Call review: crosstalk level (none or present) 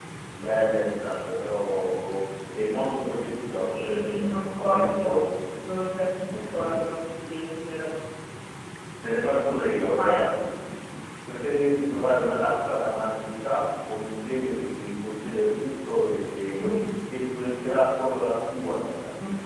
present